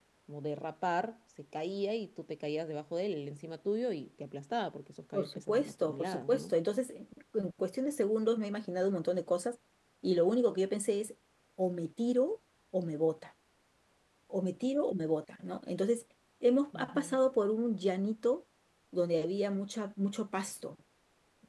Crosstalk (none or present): present